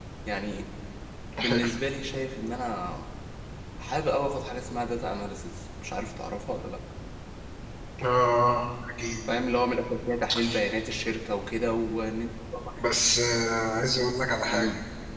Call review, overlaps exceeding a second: none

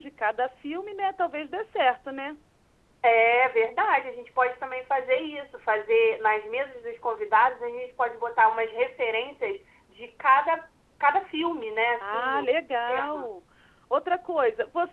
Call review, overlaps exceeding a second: none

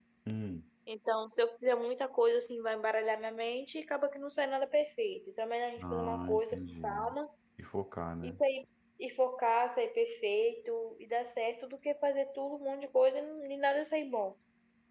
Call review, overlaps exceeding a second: present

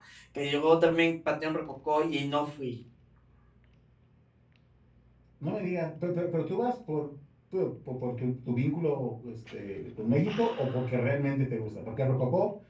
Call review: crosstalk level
none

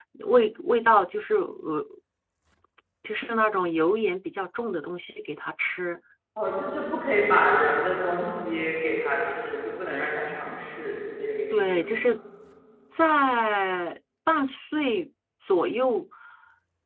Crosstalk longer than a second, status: none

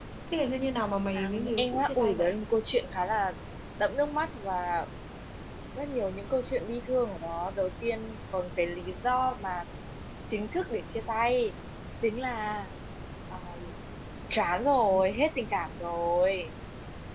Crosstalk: present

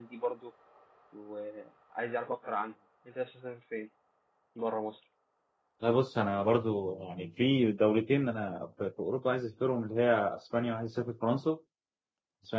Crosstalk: none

